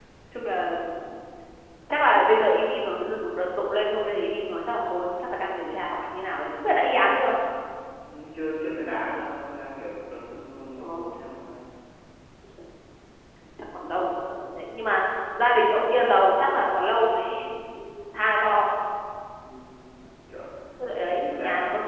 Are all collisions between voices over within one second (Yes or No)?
Yes